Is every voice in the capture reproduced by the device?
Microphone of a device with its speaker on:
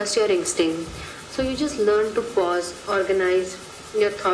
Yes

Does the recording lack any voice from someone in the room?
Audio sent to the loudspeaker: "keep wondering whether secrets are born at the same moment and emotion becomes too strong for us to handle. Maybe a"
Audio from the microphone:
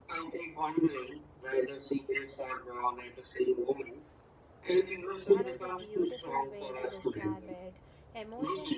No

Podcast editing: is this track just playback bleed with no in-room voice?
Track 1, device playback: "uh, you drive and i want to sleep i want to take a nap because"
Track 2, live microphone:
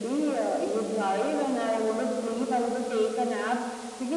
Yes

